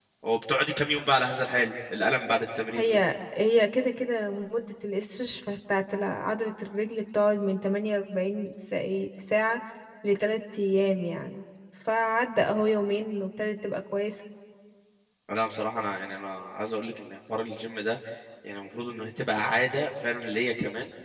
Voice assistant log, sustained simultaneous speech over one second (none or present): none